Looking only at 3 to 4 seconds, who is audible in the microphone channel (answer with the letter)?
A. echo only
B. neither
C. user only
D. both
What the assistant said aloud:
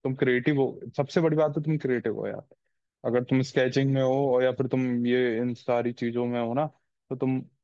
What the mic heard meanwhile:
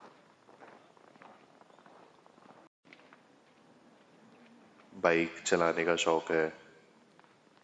B